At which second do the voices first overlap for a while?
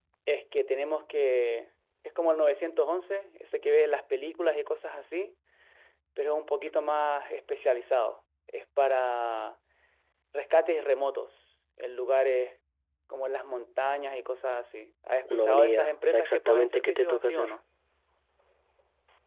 15.2 s

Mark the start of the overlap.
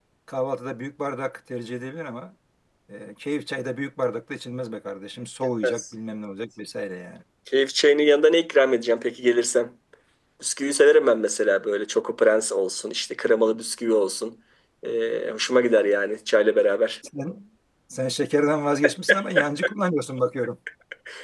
none

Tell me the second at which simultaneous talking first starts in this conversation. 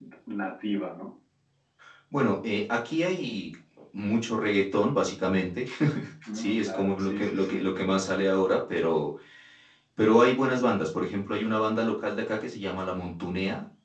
6.3 s

